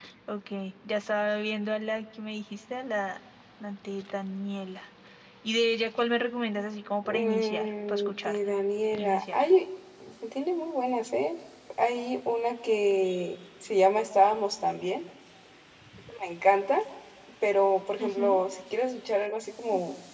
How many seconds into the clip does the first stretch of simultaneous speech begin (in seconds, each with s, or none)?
7.0 s